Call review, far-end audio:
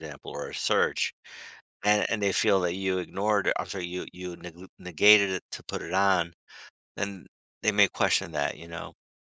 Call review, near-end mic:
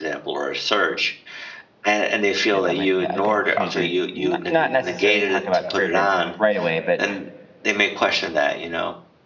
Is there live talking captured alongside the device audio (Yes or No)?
Yes